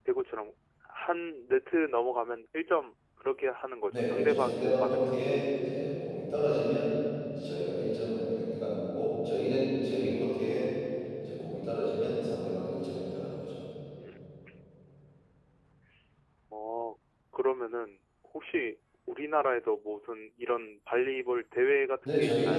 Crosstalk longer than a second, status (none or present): present